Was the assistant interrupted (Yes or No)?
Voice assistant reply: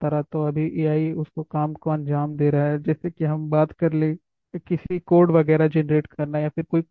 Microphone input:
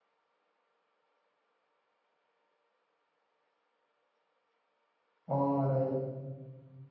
Yes